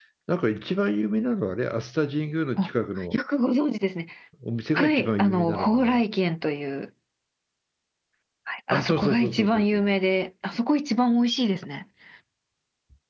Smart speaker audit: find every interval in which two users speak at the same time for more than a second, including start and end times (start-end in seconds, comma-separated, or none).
4.7-6.0, 8.7-9.9